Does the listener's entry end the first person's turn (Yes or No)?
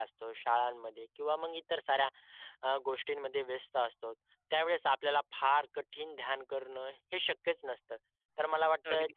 No